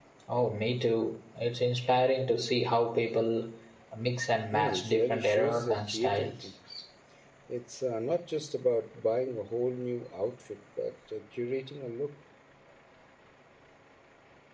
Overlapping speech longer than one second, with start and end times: 4.5-6.4

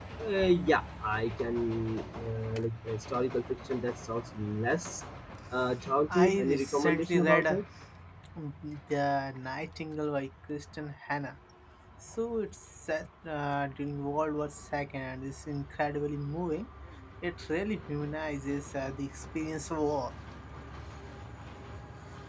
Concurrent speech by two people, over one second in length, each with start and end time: 6.2-7.6

